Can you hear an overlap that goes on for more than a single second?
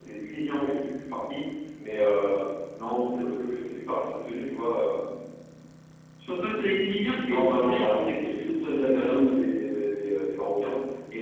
Yes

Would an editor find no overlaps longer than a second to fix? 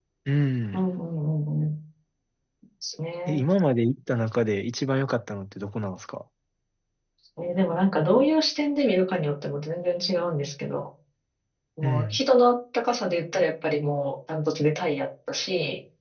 Yes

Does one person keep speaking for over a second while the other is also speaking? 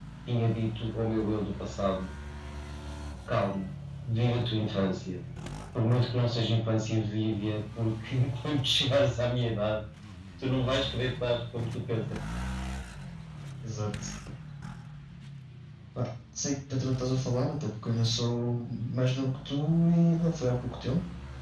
No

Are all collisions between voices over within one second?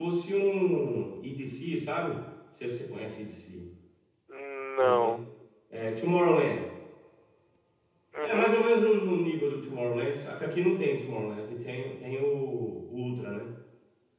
Yes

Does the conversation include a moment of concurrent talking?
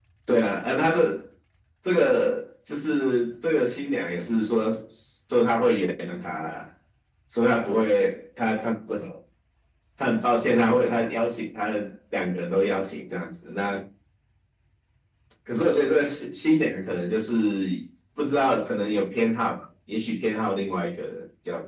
No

